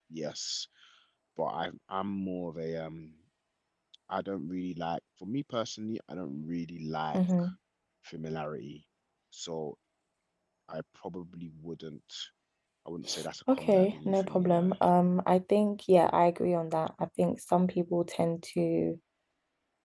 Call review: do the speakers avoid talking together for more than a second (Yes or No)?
No